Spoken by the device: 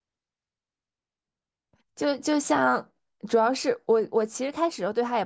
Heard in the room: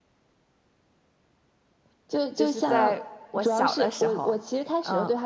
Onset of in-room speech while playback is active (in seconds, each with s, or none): 2.3 s